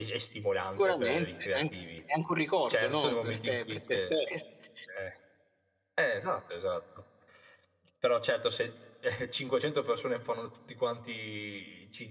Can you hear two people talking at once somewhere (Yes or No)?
Yes